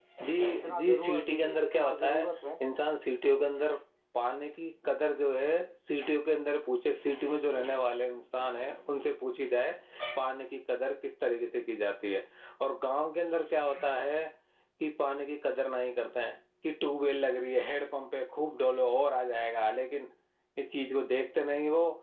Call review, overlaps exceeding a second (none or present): present